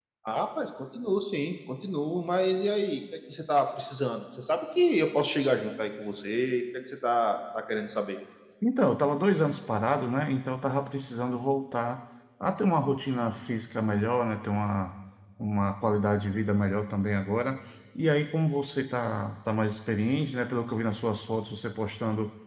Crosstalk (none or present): none